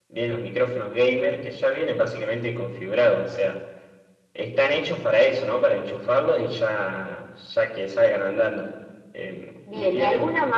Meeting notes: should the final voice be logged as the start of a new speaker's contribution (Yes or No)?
Yes